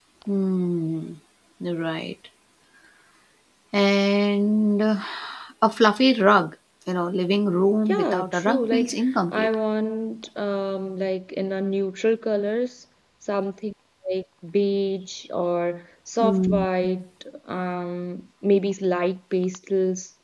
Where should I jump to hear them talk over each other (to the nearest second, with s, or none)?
8 s